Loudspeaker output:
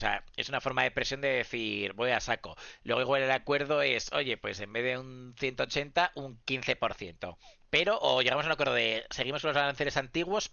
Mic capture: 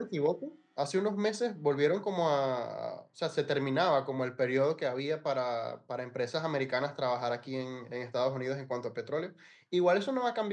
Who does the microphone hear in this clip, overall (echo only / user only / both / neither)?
user only